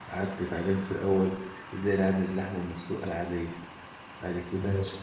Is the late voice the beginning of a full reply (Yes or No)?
No